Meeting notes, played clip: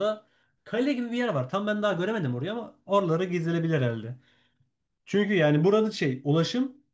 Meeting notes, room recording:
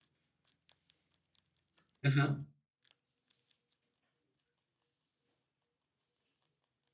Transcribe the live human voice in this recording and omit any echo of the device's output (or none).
Hı hı.